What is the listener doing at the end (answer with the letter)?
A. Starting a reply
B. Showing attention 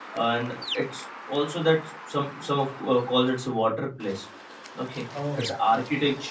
B